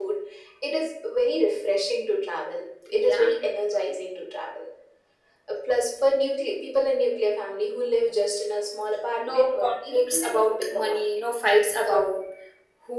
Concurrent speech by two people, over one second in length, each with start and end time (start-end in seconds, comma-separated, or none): 9.2-11.2